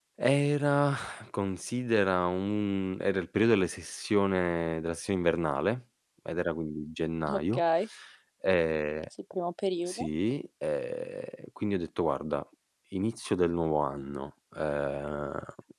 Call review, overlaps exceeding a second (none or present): none